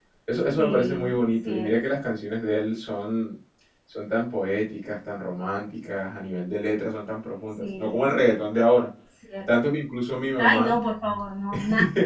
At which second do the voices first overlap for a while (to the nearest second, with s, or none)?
1 s